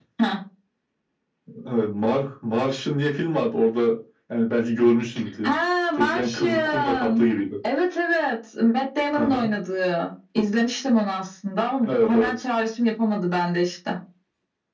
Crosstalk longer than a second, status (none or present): present